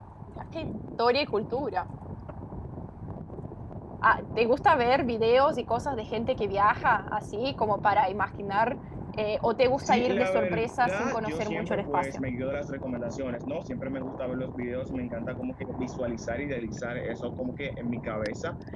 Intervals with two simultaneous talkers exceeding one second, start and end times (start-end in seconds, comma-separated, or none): 9.8-12.2